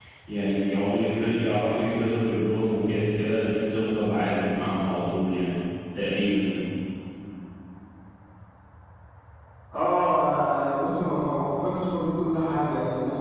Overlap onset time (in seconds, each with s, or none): none